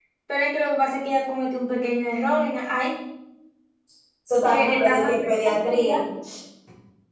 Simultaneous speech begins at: 5 s

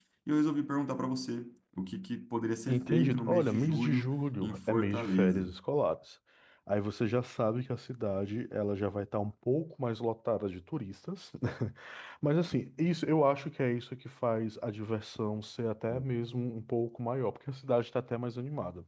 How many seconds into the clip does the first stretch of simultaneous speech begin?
3 s

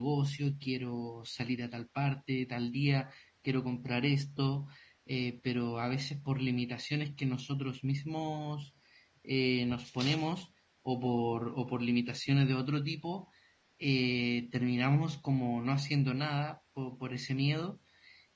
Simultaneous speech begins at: none

